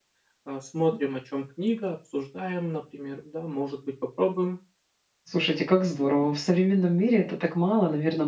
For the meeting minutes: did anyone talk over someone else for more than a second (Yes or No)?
No